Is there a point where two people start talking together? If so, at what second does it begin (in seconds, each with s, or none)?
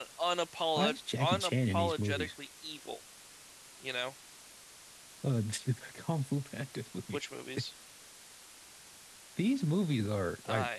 0.8 s